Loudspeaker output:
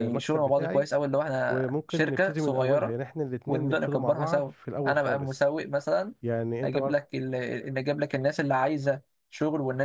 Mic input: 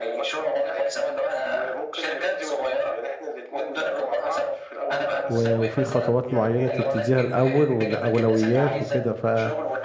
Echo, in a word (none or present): present